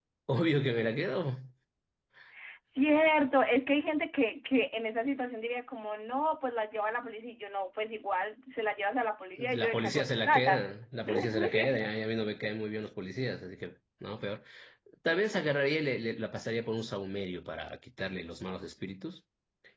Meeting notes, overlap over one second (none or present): present